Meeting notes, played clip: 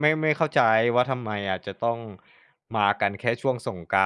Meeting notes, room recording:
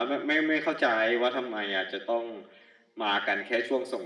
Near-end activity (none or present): none